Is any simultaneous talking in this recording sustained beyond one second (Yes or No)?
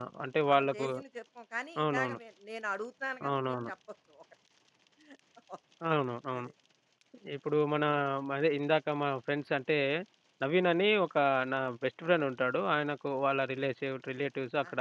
No